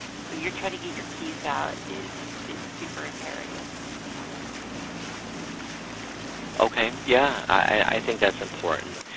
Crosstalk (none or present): none